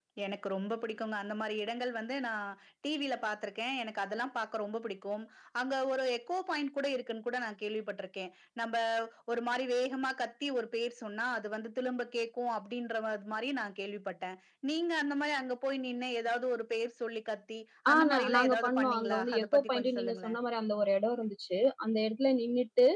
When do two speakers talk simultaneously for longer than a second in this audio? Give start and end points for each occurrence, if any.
17.9-20.3

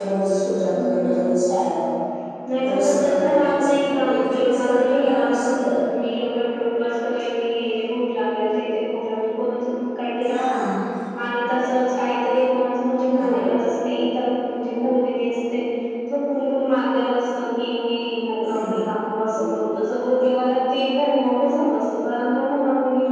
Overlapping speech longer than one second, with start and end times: 2.7-5.7

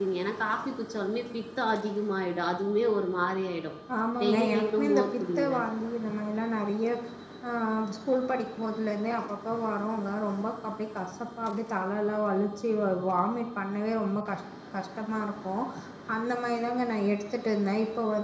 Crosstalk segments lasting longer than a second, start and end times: 4.2-5.5

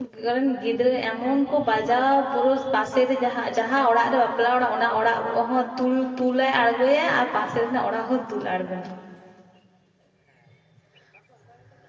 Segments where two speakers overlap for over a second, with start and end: none

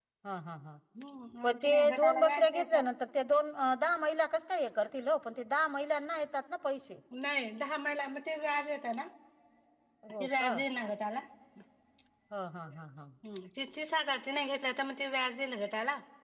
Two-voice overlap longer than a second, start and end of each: 1.4-2.8

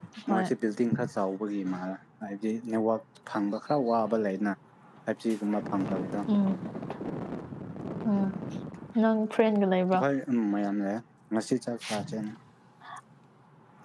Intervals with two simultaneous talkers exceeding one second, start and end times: none

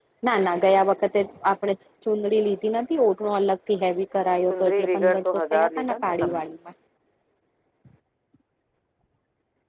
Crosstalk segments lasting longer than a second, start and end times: 4.5-6.4

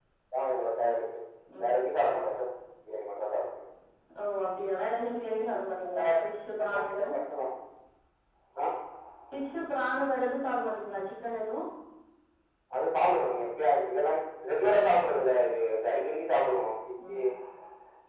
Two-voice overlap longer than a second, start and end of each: none

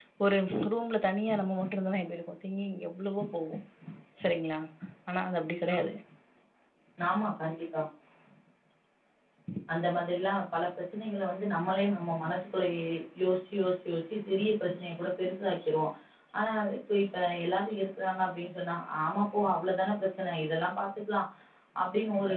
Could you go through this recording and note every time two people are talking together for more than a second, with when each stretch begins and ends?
none

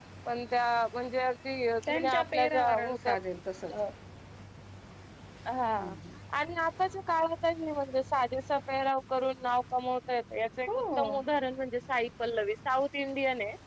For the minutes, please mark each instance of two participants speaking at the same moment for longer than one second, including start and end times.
1.9-3.1

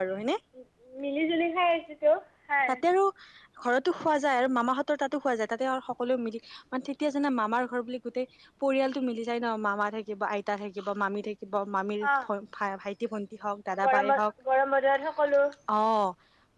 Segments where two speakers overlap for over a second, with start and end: none

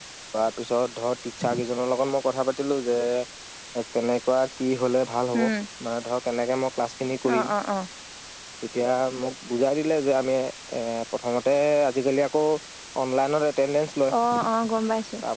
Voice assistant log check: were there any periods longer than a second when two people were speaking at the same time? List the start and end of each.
none

